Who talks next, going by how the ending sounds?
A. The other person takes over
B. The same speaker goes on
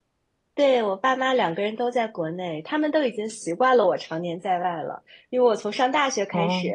B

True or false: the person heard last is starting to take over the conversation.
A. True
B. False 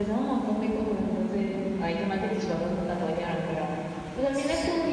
B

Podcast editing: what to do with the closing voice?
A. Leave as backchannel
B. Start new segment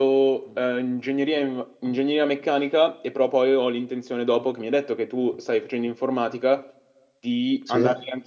A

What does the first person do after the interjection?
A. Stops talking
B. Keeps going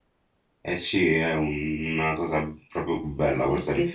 B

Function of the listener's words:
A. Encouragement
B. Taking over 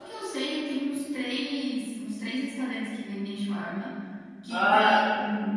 A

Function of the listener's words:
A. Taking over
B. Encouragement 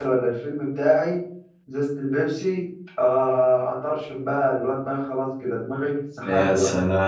A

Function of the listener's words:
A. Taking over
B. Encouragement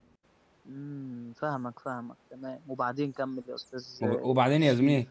A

